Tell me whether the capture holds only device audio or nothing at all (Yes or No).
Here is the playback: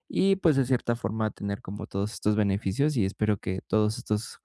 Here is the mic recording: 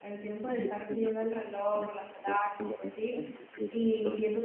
No